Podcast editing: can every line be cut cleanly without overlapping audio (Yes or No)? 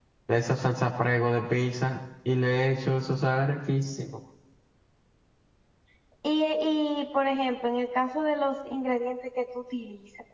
Yes